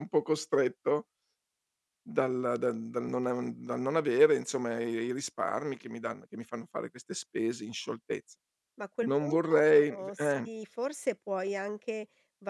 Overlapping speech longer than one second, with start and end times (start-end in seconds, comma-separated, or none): 9.0-10.5